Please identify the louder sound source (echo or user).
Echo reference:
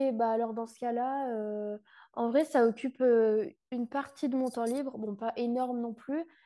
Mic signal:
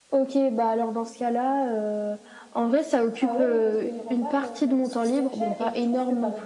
echo